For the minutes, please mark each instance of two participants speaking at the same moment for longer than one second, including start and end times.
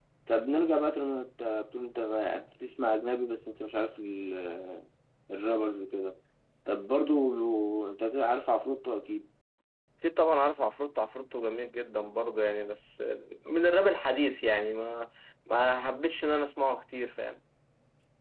none

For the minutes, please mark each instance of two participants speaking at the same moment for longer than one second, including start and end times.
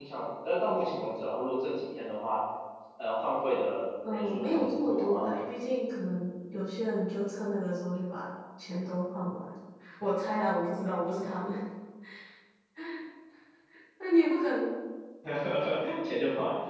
4.1-5.3

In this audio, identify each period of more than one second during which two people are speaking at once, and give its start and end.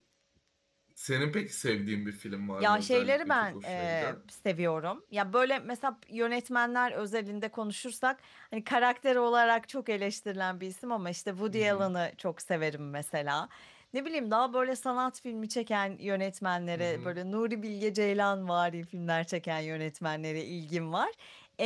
2.6-4.2

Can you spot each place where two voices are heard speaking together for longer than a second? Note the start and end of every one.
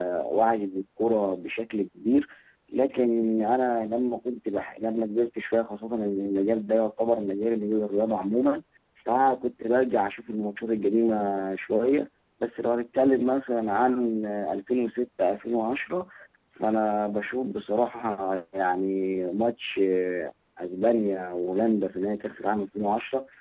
none

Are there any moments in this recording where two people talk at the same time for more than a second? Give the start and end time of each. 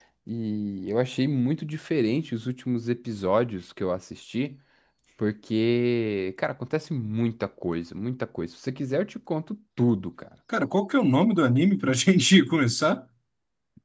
none

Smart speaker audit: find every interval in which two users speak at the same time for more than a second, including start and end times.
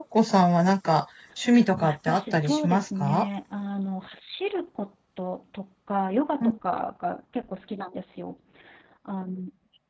1.8-3.3

